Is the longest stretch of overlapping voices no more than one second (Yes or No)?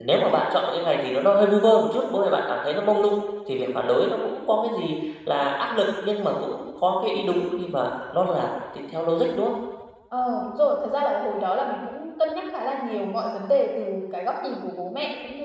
Yes